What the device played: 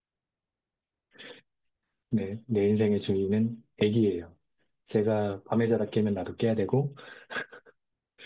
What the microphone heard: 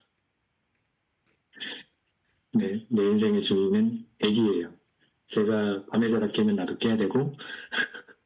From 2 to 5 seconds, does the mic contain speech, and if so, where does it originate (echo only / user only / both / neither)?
echo only